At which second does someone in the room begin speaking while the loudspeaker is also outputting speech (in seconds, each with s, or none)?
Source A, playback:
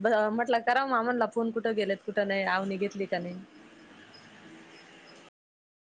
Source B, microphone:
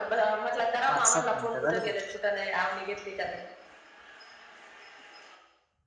0.9 s